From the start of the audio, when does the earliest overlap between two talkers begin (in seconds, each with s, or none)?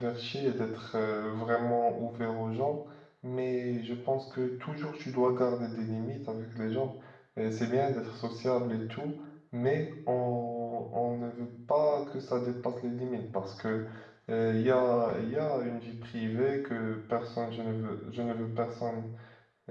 none